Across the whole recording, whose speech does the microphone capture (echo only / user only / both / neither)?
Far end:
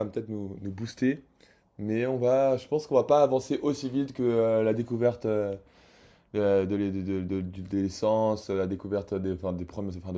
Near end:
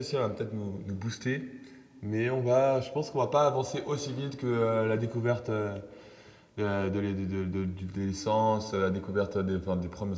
echo only